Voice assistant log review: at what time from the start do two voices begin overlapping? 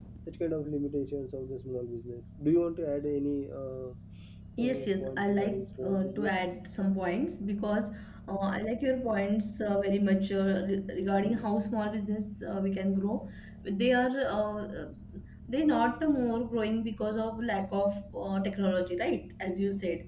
4.6 s

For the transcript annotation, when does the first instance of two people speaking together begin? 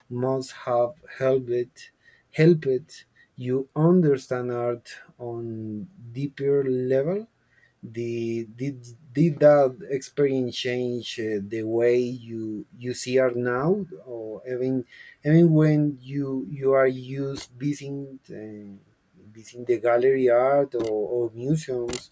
none

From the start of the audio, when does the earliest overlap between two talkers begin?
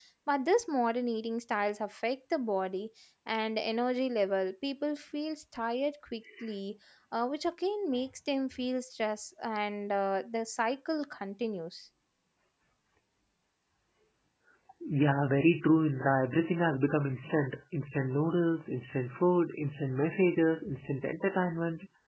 none

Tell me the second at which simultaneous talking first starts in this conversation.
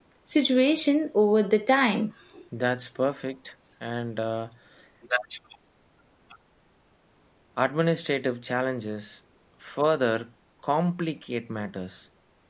none

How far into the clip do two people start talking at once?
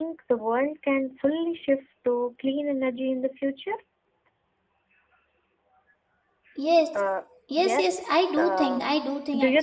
7.6 s

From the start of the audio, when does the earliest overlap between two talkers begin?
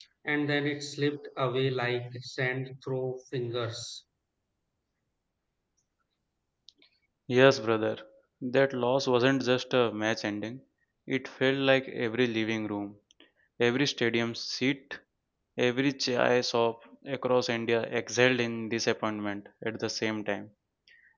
none

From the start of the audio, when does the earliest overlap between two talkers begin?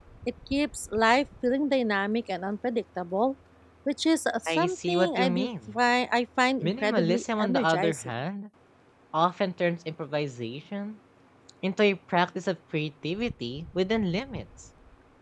4.5 s

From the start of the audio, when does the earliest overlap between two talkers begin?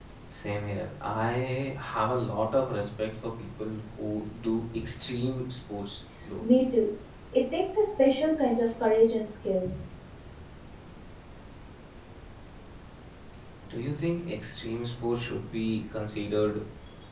none

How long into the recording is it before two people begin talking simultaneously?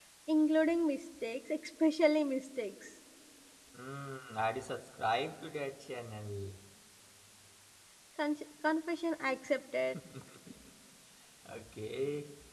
none

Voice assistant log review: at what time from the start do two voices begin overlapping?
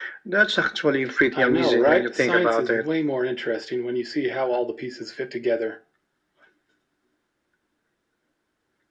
1.3 s

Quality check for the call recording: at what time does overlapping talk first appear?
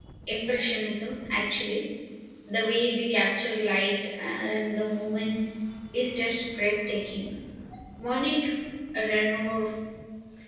none

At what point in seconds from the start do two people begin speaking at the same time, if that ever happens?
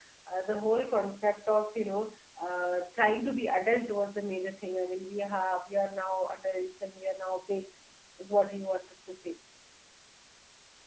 none

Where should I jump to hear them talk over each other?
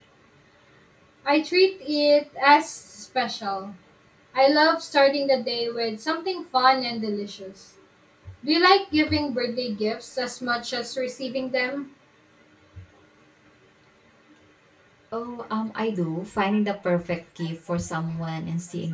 none

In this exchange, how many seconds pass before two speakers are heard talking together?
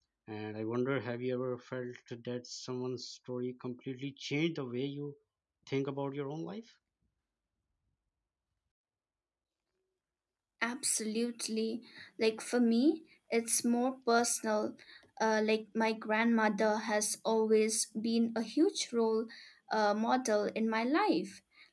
none

